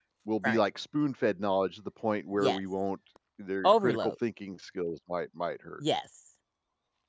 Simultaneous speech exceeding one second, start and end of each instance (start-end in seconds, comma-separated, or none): none